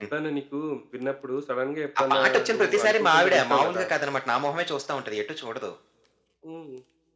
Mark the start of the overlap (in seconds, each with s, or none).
1.9 s